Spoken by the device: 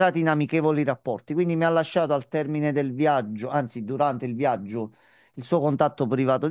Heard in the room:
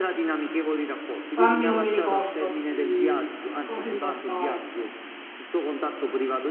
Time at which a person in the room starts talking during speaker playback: 1 s

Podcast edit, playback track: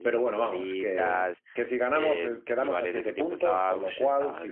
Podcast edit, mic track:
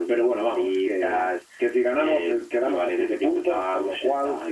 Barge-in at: none

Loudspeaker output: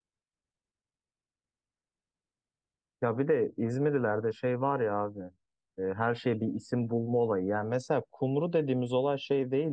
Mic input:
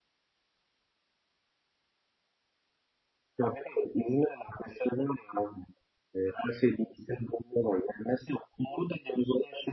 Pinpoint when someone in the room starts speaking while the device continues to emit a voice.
none

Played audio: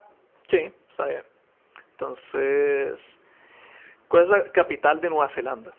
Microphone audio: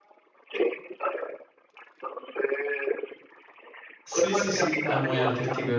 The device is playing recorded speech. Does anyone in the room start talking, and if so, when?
4 s

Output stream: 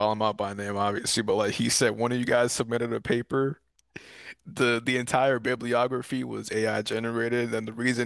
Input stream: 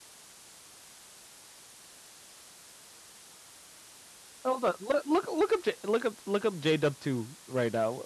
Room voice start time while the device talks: 4 s

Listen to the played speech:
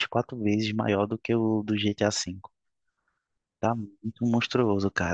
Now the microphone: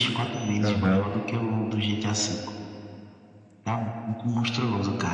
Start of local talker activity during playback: 1 s

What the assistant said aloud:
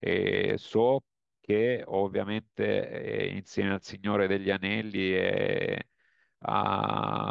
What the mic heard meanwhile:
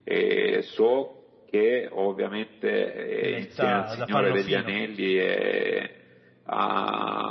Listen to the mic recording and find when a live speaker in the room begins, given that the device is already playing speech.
3 s

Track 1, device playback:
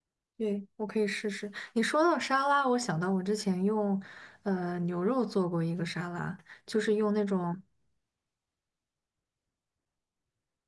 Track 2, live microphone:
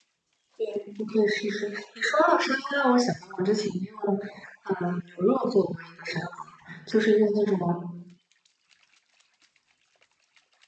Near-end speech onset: none

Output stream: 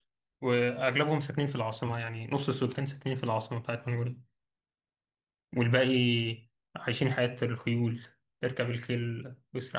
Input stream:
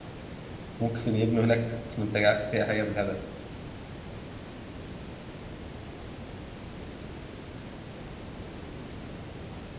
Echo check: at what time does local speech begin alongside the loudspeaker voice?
1 s

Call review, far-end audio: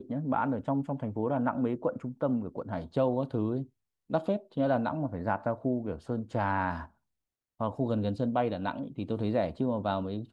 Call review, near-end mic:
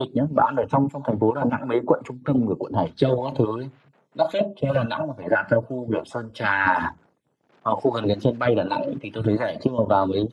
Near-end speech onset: none

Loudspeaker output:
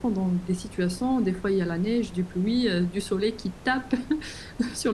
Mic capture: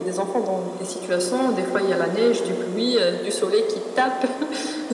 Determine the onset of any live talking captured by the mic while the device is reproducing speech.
none

